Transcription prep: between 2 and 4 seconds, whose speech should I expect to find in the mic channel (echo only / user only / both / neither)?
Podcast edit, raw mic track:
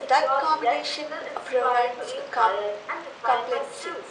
echo only